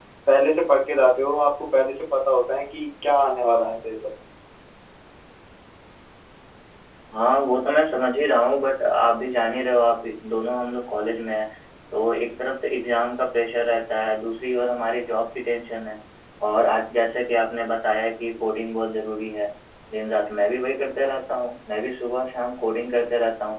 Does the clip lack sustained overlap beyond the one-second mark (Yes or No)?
Yes